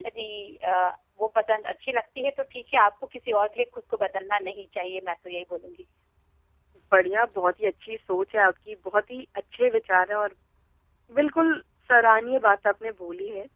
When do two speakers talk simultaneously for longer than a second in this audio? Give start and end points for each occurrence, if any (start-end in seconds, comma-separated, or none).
none